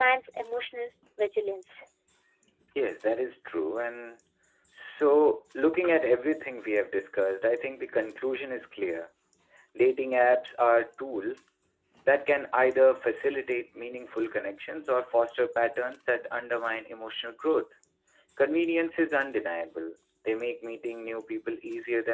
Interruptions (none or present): none